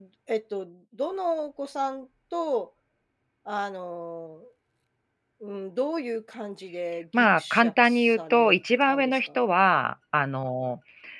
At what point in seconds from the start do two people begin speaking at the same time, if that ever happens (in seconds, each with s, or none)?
7.1 s